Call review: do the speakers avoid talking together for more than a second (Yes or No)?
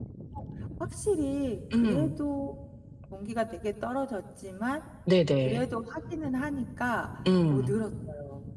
Yes